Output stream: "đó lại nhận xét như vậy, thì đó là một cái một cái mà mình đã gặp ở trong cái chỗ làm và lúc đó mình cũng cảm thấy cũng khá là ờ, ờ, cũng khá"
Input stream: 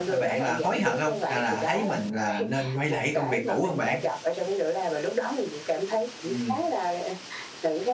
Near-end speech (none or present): present